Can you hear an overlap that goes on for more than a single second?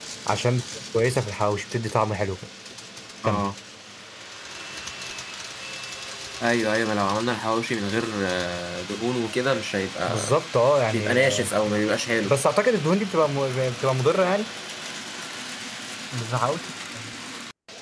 No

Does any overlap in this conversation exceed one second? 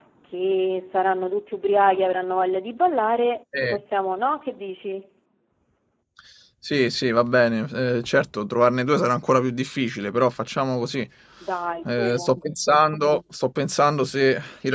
No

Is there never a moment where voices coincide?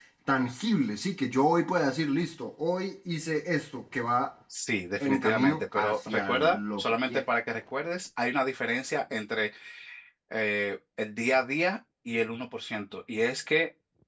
No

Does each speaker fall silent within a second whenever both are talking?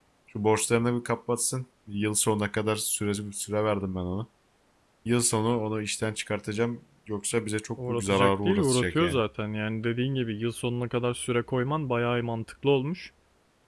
No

